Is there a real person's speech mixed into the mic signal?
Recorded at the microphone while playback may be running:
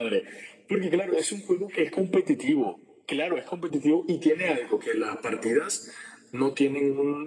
No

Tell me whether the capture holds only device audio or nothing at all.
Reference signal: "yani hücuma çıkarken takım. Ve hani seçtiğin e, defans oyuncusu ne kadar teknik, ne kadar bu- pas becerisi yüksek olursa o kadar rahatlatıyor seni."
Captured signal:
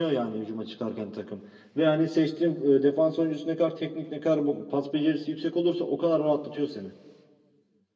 Yes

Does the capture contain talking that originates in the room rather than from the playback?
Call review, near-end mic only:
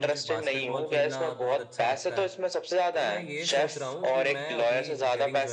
Yes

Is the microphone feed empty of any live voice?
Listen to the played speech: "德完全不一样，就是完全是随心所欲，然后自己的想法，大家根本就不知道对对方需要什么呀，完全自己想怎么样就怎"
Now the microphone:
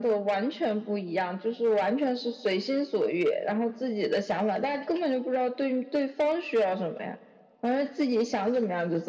Yes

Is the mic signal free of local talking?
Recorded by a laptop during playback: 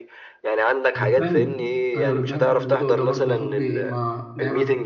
No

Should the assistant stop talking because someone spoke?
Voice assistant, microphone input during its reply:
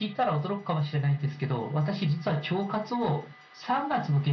No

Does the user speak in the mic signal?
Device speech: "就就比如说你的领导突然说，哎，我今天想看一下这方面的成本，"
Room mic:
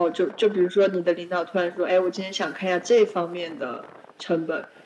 No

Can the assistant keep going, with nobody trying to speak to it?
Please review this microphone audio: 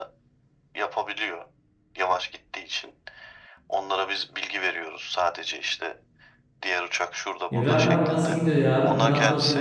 No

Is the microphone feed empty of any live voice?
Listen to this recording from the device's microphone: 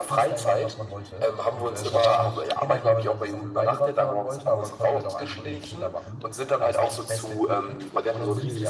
No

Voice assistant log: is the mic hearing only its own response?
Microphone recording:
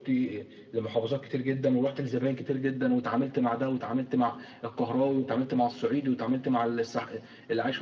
Yes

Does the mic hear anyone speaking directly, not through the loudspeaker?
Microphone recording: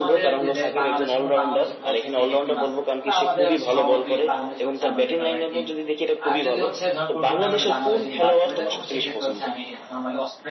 Yes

